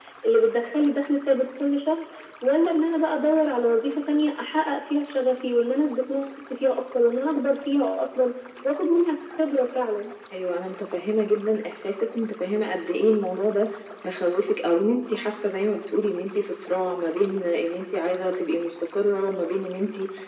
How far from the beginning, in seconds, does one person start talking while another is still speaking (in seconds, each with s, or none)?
none